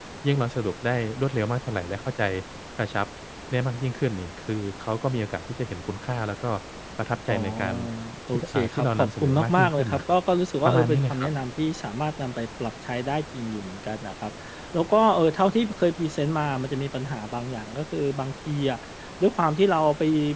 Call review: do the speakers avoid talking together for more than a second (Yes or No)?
No